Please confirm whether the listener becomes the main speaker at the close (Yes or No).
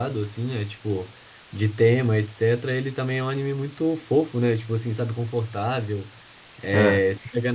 No